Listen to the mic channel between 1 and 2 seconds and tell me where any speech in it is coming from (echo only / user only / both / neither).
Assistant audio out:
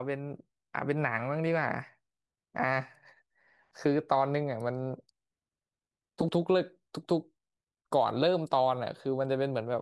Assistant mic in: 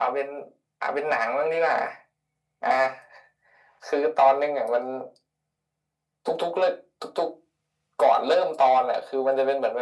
echo only